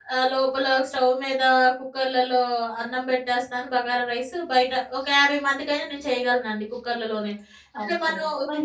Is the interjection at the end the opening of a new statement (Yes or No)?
Yes